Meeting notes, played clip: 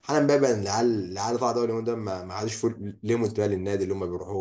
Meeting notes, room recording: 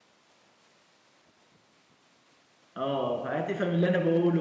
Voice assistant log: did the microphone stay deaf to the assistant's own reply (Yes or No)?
Yes